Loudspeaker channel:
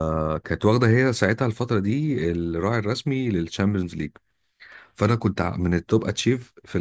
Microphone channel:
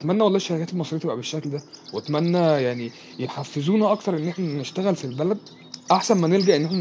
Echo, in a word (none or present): none